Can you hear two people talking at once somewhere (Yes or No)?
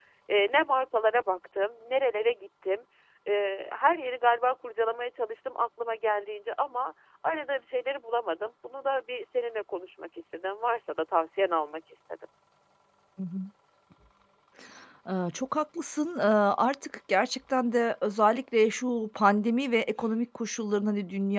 No